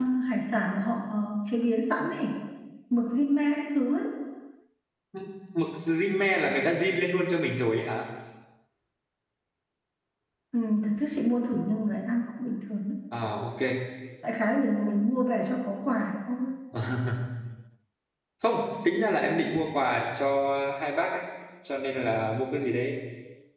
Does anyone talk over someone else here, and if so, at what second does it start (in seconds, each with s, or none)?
none